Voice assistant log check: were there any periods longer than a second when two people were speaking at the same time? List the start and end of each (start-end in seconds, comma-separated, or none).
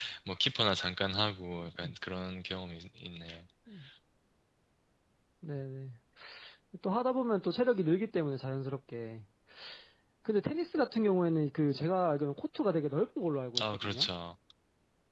none